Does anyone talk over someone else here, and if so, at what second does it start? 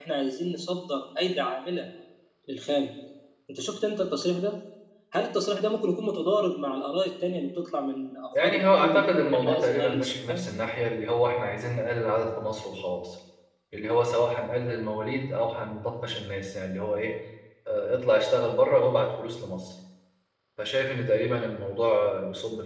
8.3 s

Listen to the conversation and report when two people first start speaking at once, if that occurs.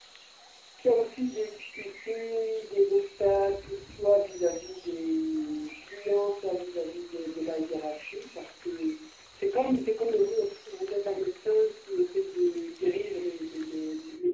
none

